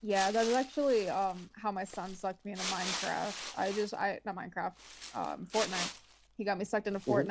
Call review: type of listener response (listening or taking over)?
listening